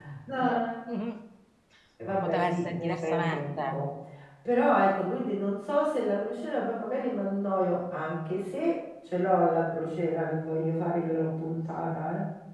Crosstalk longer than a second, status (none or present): present